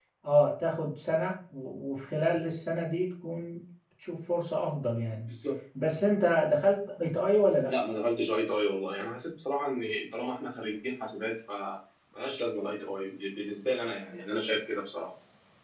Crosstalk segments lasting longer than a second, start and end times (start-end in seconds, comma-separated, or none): none